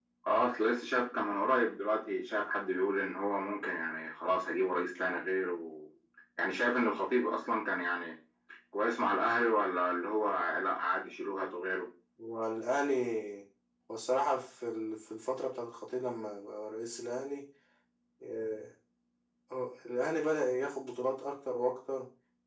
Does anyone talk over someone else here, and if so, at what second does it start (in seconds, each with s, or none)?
none